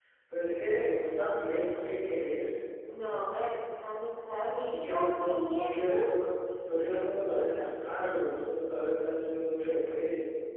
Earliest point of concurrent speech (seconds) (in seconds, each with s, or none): 4.7 s